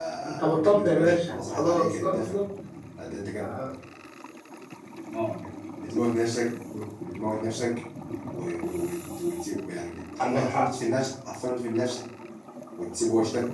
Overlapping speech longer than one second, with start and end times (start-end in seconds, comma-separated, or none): 0.5-2.4